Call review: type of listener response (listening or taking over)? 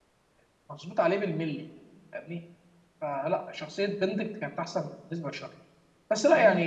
listening